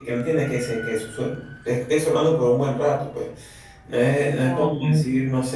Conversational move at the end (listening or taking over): listening